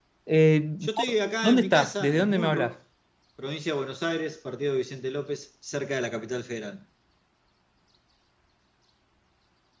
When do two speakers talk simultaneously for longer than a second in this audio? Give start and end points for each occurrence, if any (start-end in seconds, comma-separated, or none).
1.4-2.7